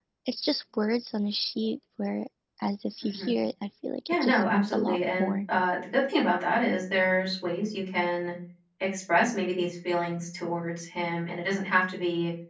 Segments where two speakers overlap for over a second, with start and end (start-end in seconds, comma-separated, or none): 4.1-5.3